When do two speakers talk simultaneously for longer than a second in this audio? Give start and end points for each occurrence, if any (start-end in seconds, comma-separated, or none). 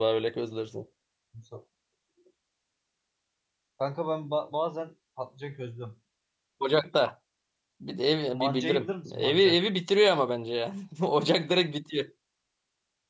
8.3-9.6